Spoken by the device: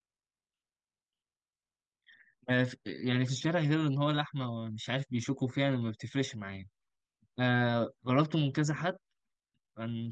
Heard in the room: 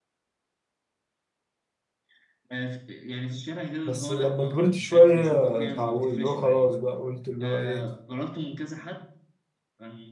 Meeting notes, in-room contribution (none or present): present